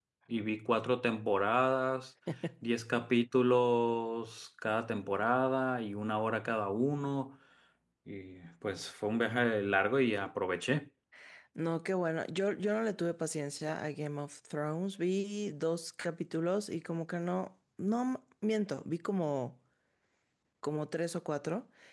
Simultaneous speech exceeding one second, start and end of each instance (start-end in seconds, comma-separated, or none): none